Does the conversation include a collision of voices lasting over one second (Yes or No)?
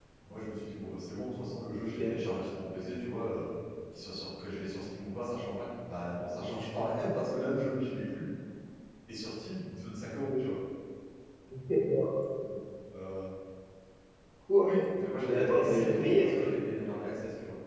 Yes